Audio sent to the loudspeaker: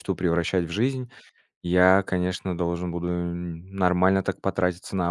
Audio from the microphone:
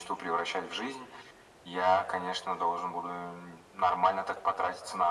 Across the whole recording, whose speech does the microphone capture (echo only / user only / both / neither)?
echo only